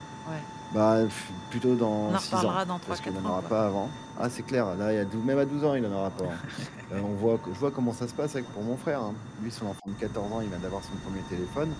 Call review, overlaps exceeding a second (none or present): present